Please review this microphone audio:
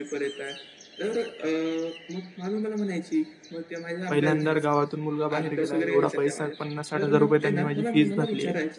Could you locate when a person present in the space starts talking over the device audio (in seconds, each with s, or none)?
4.1 s